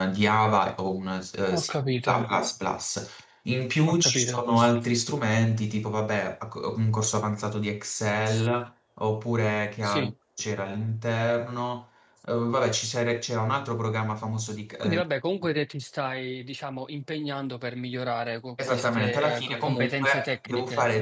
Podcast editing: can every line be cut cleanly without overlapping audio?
No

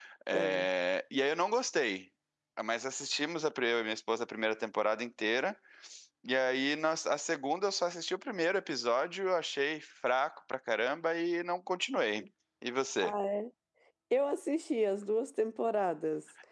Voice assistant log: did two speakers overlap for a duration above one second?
No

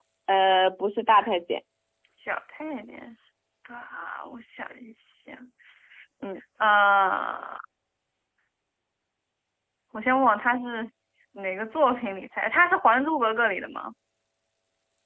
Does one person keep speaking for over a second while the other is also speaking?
No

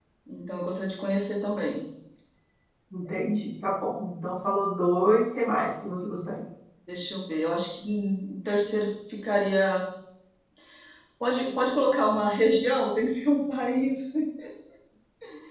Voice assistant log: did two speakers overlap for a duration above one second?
No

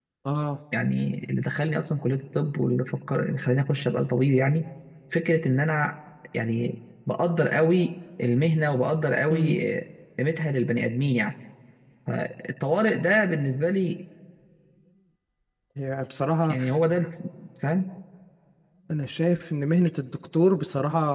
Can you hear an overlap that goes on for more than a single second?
No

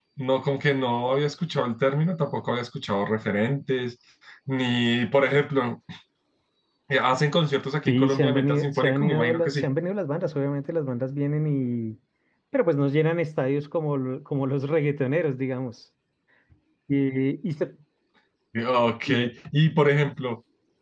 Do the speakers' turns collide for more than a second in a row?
Yes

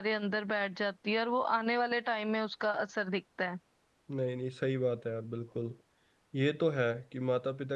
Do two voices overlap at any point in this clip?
No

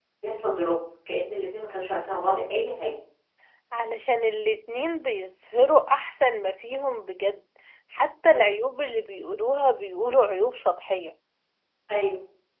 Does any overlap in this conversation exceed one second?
No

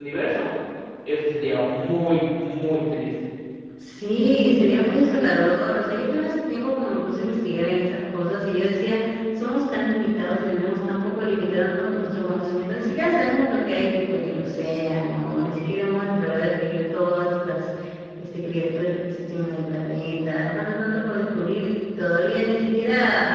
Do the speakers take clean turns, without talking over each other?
Yes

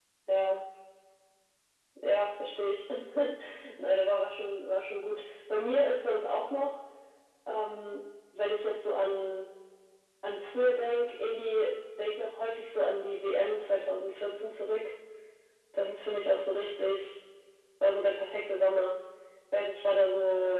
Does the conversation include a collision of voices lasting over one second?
No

